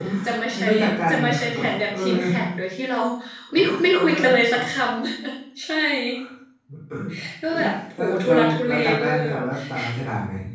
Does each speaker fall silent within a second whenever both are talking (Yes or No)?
No